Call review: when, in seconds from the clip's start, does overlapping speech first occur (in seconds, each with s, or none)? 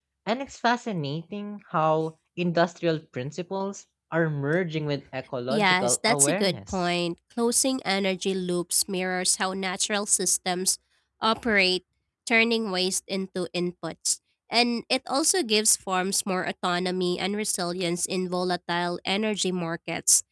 5.5 s